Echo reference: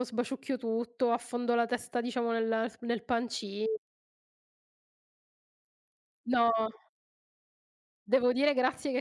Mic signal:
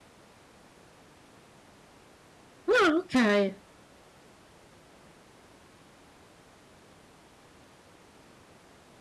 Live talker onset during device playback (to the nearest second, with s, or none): 3 s